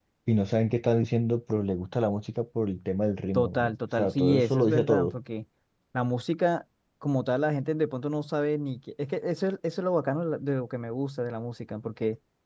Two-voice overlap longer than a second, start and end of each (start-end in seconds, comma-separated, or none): 3.3-5.2